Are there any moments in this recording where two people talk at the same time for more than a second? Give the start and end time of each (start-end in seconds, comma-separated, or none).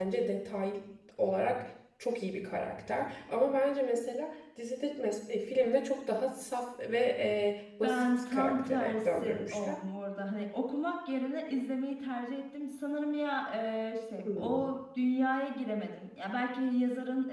7.8-9.8